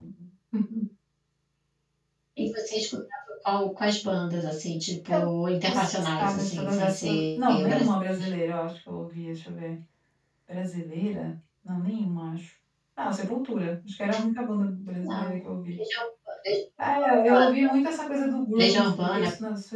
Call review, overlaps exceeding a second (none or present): present